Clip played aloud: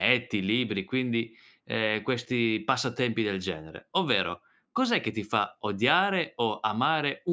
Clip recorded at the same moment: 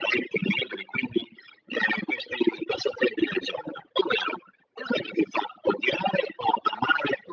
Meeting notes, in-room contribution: none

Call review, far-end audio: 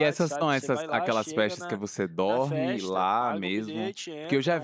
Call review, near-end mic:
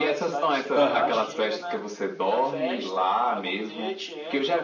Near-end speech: present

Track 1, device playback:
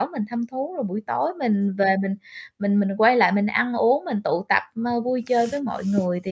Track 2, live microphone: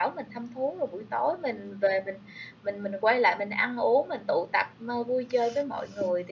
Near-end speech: none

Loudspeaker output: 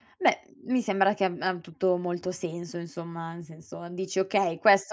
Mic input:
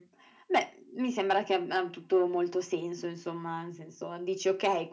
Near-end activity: none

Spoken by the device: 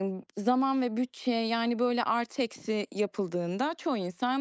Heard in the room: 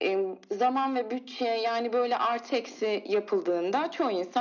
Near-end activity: none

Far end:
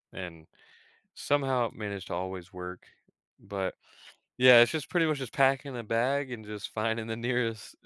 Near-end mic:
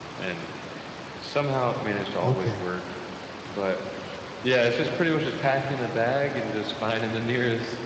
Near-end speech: present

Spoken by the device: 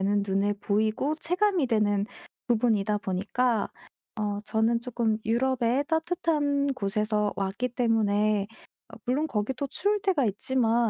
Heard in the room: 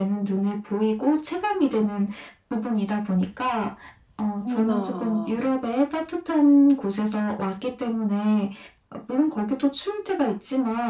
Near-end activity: present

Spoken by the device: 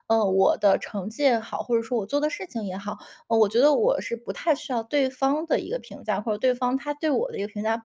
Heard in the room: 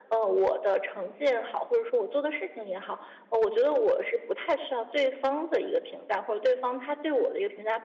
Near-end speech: none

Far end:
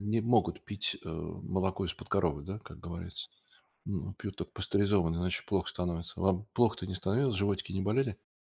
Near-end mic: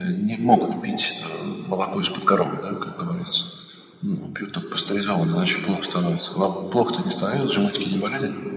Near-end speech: none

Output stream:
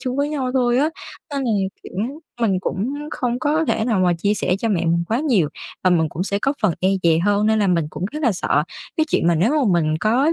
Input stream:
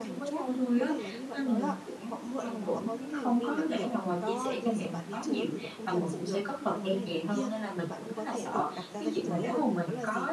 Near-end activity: present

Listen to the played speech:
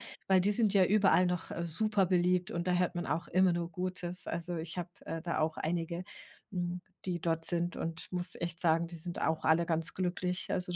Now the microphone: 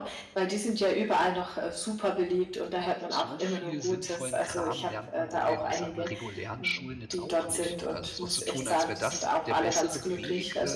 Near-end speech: present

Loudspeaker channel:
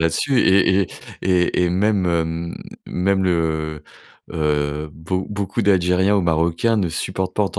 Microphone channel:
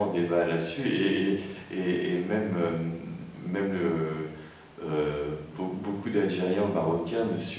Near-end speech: none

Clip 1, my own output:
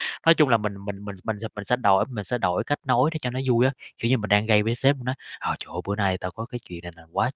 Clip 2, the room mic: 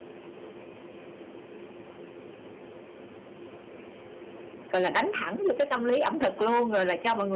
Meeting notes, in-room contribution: present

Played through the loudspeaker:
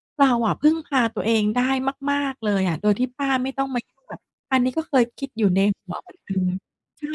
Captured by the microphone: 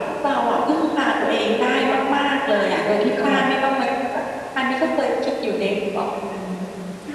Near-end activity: present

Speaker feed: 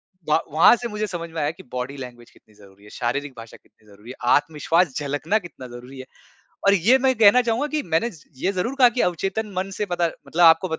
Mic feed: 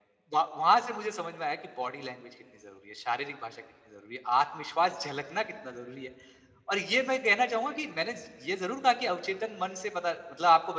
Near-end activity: none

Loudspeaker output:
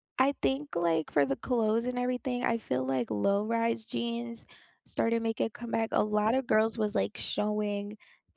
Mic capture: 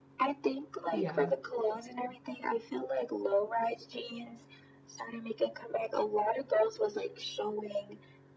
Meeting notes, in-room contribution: present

